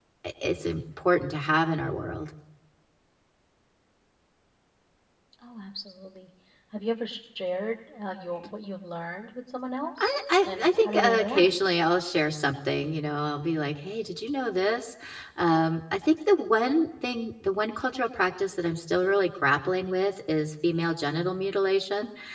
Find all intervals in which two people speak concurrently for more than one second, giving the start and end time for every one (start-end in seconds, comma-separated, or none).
10.0-11.5